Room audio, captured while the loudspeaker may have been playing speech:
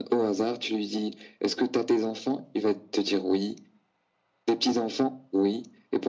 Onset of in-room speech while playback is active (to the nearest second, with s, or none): none